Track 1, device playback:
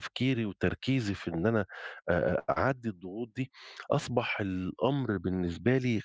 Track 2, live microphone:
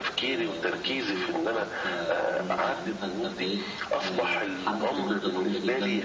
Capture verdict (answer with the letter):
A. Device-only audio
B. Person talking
B